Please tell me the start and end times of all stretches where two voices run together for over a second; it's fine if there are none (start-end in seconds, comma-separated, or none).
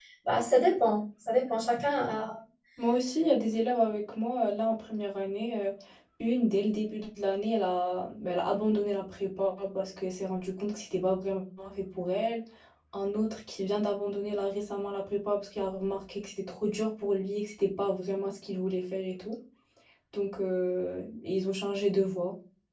none